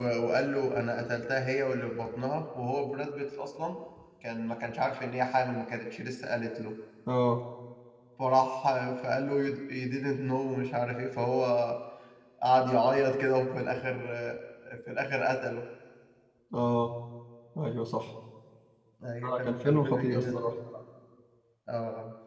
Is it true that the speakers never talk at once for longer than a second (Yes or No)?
No